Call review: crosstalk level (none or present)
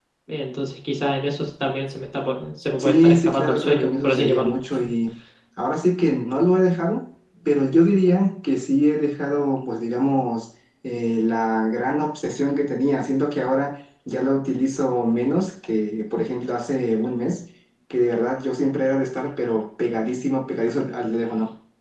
present